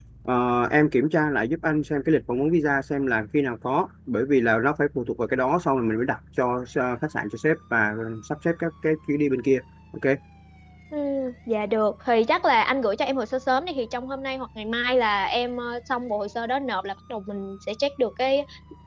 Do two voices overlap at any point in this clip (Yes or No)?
No